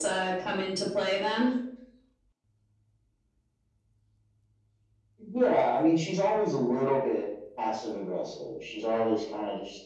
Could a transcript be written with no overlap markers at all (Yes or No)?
Yes